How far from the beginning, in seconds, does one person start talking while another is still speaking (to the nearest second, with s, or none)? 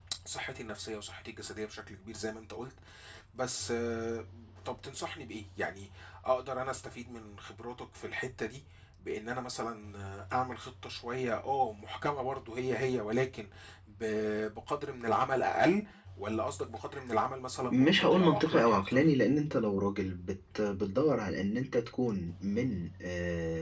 18 s